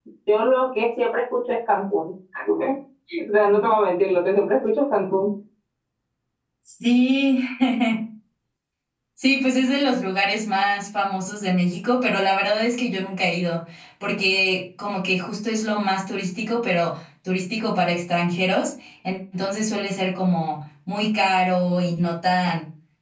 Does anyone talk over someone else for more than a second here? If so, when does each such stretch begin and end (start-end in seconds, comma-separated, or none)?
none